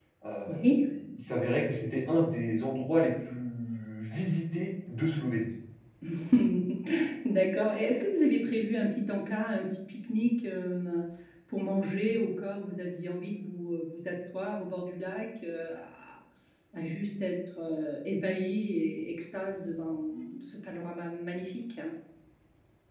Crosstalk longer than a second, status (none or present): none